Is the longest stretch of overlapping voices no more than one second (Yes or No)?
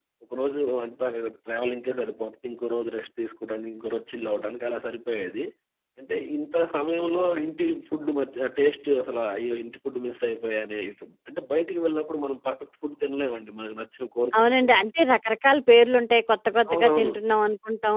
Yes